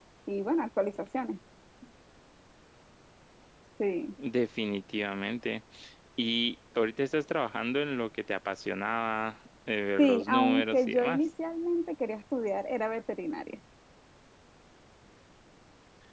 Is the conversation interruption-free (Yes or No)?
No